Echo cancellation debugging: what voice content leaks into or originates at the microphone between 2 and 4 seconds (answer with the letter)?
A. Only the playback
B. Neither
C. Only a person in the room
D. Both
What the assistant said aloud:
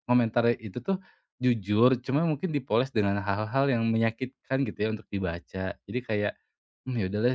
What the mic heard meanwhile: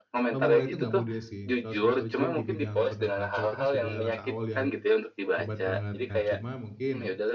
D